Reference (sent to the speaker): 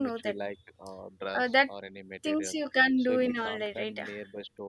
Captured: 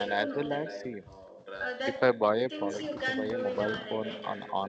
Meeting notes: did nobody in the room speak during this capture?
No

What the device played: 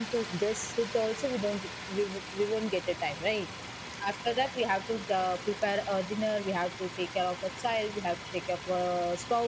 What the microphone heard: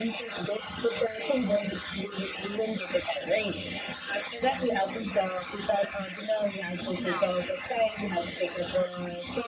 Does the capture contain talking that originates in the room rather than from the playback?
Yes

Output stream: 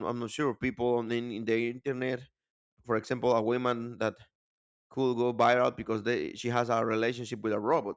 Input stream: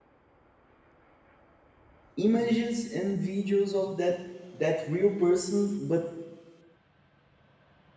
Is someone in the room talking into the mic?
Yes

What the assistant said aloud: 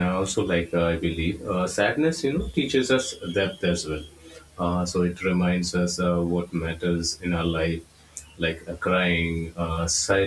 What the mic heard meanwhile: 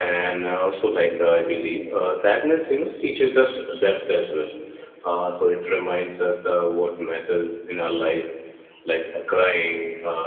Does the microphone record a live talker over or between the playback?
No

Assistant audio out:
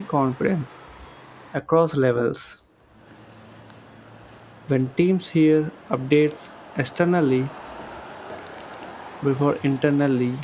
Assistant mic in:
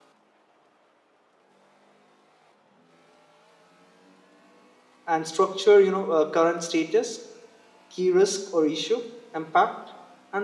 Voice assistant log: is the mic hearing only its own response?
No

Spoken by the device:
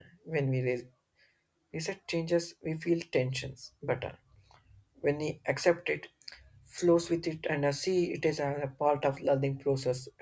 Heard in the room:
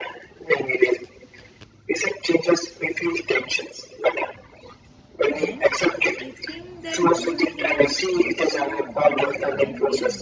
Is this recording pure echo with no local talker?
No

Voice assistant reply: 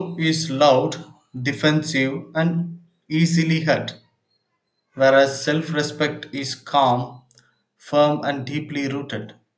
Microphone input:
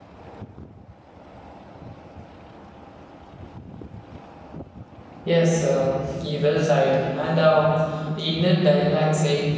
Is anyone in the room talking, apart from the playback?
Yes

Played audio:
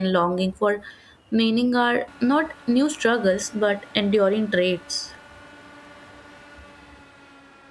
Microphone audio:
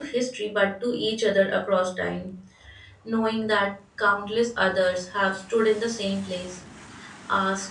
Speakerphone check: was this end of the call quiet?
No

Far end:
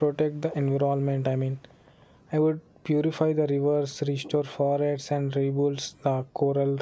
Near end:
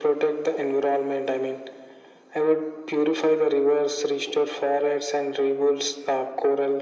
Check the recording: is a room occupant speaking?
No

